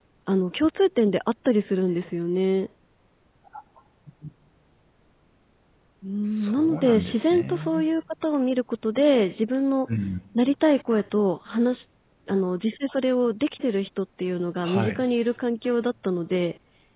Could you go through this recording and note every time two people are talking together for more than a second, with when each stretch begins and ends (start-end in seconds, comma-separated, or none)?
6.2-7.9